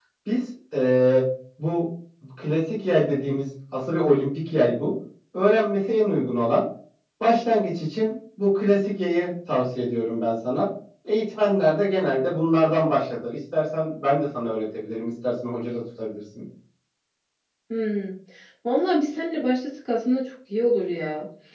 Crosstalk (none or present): none